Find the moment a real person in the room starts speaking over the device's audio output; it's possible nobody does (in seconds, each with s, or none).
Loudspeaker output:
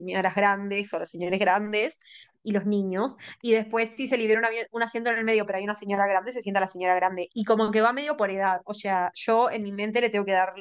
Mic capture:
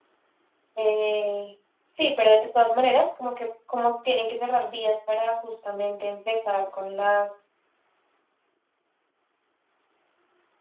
0.8 s